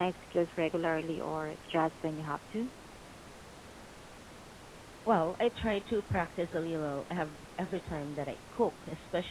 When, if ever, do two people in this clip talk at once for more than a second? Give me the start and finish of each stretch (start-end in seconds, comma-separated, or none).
none